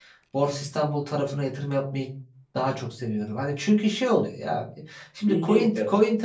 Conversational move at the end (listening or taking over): listening